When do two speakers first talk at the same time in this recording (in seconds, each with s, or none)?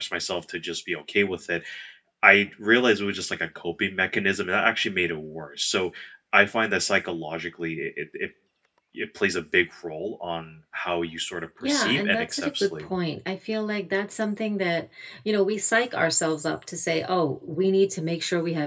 11.6 s